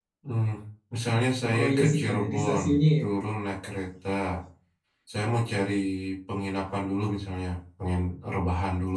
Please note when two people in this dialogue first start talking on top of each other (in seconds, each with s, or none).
1.5 s